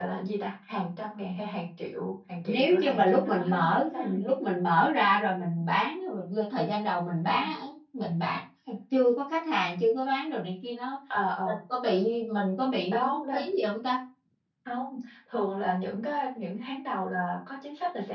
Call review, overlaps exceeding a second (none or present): present